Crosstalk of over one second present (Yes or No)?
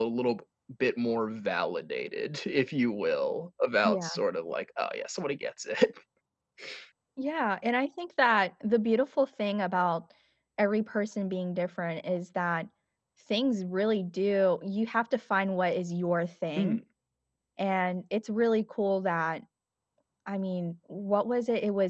No